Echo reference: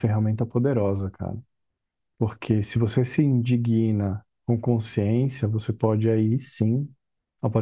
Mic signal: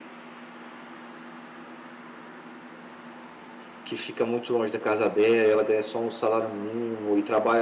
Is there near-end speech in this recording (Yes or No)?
Yes